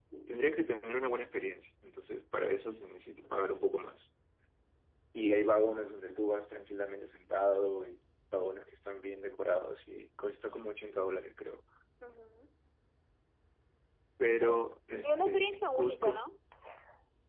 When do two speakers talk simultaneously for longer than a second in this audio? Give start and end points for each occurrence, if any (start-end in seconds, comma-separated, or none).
15.0-16.3